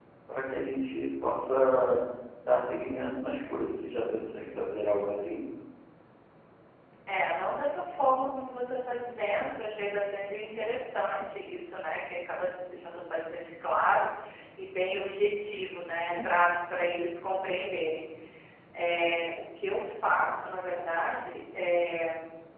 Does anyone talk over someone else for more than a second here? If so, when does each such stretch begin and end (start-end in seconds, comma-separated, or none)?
none